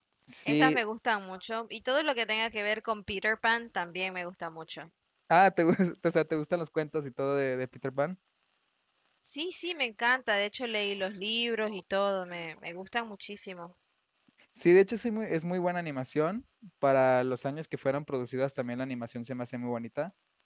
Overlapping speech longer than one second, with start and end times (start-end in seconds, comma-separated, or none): none